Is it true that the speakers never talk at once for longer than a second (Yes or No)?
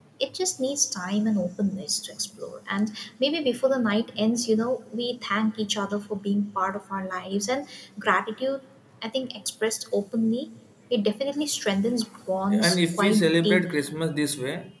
No